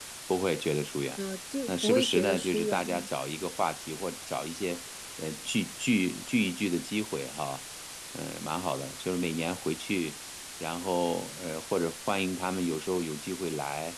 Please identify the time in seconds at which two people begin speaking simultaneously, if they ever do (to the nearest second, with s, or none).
2 s